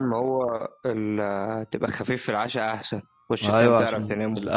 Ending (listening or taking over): taking over